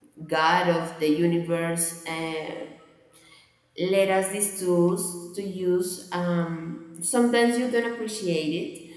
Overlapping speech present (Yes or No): No